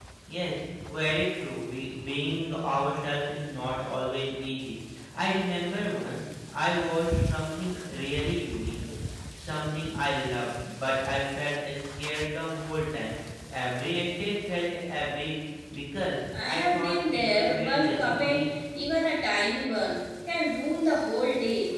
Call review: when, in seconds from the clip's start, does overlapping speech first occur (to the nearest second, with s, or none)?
16 s